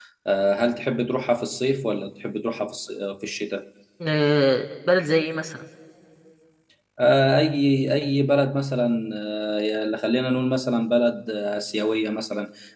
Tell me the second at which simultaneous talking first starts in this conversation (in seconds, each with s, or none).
none